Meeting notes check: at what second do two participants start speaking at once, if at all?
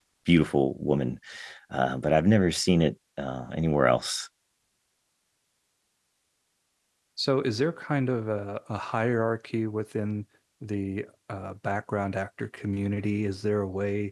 none

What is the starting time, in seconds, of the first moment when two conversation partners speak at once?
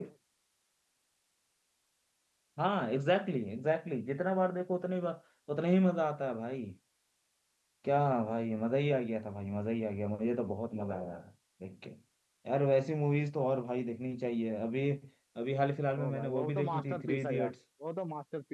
16.0 s

